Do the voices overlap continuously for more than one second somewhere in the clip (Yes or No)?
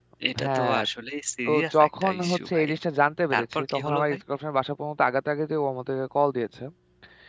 Yes